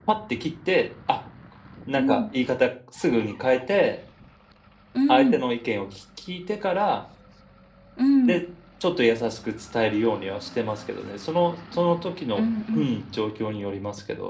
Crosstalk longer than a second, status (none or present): none